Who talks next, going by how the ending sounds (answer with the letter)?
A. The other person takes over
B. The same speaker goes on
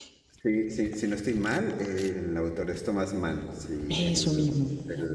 B